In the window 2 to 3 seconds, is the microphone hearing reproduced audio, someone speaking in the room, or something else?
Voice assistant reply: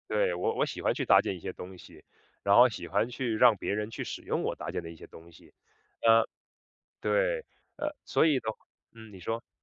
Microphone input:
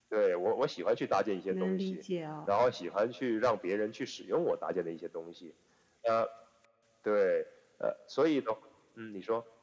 both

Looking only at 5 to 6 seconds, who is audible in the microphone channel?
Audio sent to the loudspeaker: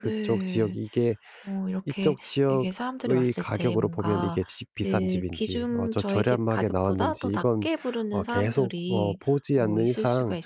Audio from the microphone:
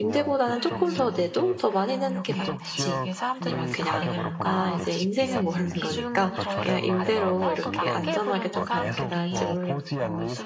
both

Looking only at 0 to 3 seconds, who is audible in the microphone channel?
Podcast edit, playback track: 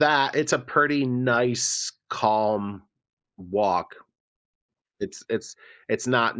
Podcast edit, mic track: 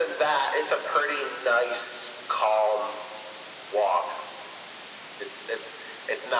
echo only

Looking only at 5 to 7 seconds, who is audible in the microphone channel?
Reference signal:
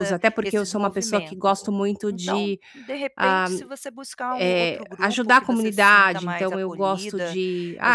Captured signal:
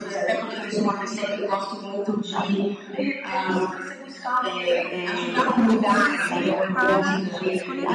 both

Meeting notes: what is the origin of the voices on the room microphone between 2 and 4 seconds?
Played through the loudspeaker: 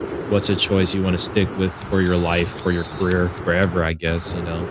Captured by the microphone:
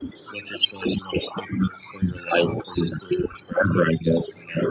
echo only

